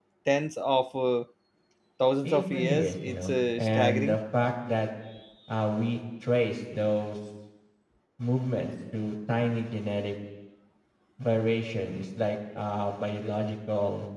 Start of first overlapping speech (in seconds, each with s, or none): 2.2 s